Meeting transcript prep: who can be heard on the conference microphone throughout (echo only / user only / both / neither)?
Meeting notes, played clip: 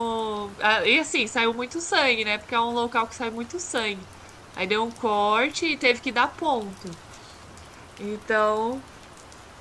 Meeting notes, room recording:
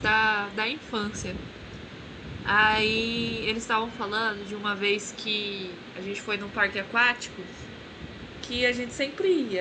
user only